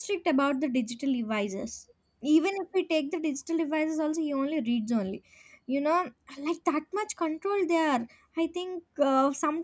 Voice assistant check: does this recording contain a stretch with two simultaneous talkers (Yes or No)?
No